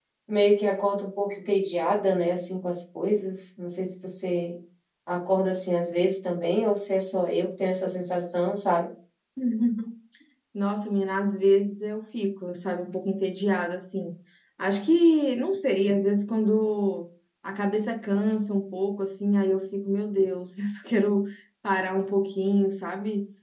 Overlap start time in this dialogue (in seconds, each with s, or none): none